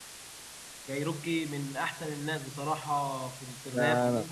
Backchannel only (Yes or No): No